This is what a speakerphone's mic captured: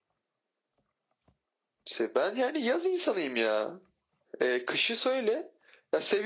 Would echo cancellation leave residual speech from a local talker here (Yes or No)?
No